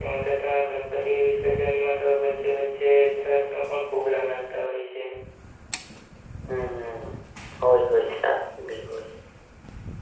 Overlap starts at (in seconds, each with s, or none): none